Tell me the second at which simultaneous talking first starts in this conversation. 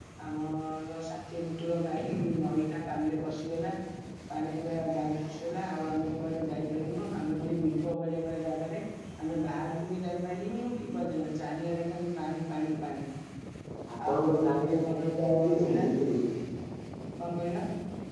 14.1 s

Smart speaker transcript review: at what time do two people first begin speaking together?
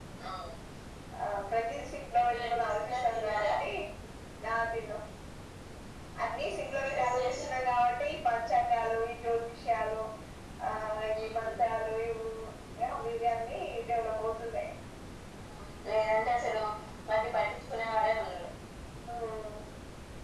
2.2 s

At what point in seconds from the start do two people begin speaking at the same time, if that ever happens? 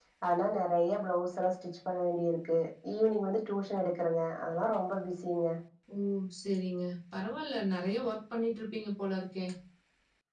none

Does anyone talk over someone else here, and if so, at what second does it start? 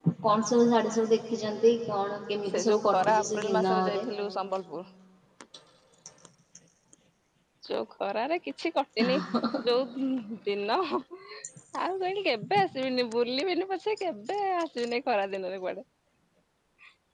2.5 s

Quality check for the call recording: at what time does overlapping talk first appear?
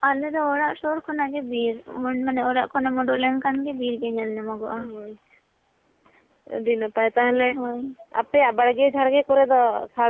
none

